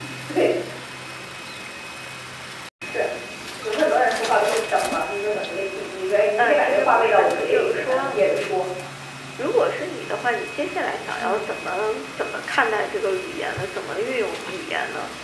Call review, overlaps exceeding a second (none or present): present